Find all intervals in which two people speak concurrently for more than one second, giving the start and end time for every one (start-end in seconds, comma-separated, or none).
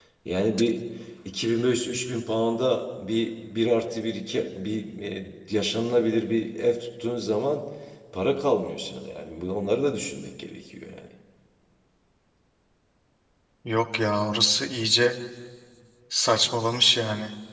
none